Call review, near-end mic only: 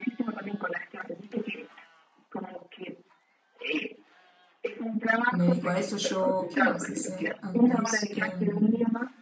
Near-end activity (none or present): present